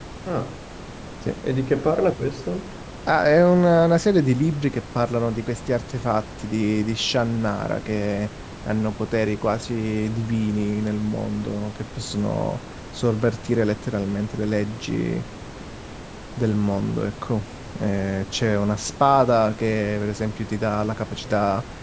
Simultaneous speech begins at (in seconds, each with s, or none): none